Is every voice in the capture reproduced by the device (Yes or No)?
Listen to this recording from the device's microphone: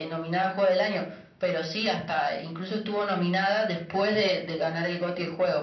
Yes